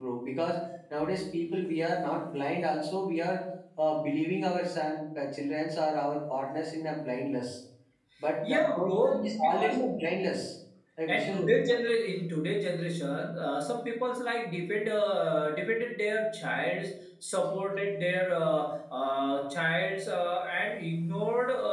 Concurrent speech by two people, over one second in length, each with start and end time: 8.4-9.8

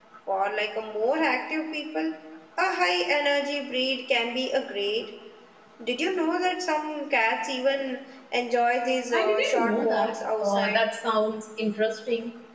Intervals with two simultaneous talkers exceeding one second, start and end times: 9.1-10.8

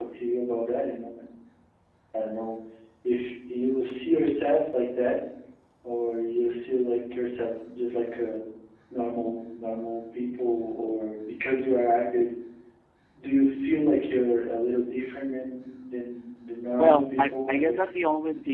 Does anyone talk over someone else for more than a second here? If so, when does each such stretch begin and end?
16.8-18.0

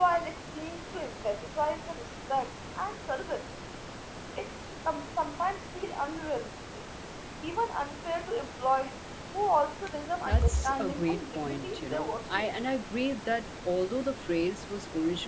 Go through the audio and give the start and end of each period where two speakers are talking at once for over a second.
10.2-12.7

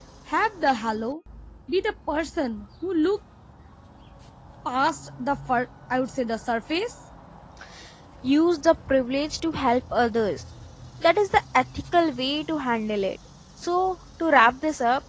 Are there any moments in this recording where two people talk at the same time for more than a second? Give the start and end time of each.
none

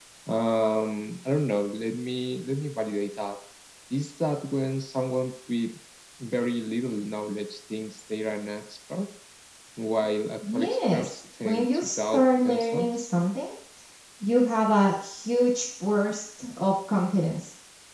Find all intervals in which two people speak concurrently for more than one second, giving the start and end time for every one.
10.5-13.0

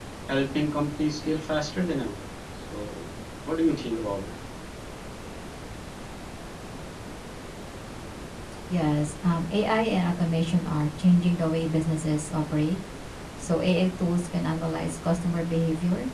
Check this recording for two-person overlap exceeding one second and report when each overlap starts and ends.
none

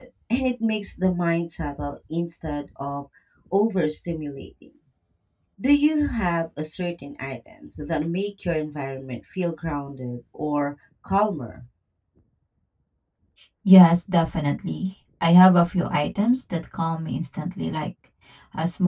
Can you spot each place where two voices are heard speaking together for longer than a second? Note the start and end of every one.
none

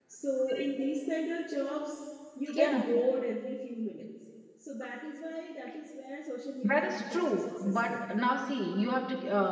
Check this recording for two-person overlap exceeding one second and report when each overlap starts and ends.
6.6-8.0

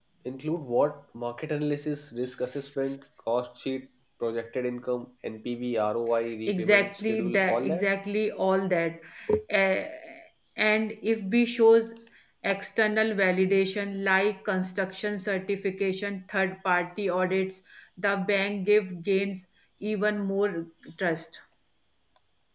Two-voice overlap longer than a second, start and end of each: 6.5-7.9

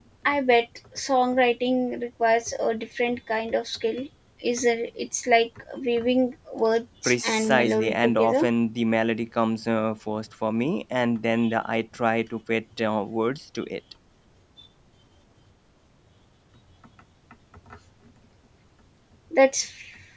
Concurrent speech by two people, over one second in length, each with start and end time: 7.0-8.5

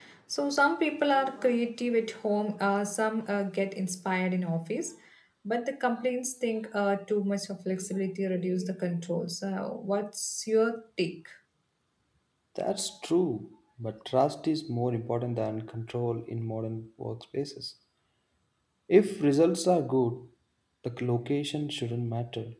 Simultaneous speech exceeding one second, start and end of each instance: none

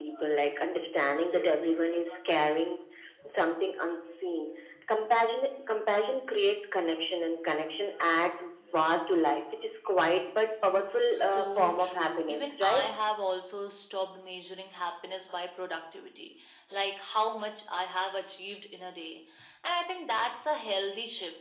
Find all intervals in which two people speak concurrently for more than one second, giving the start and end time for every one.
11.1-12.9

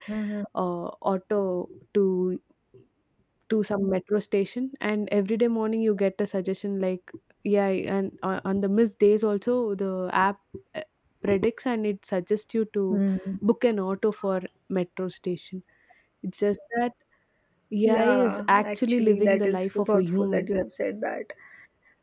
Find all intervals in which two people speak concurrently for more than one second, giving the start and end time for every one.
17.9-20.5

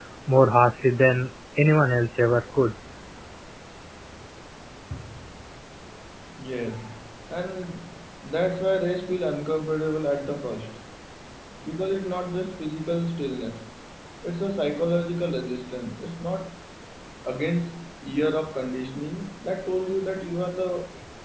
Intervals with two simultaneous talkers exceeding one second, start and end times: none

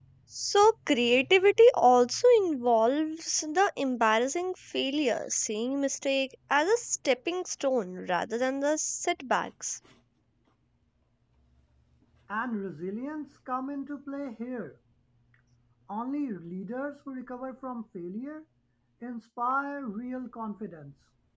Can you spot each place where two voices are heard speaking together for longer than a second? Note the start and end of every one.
none

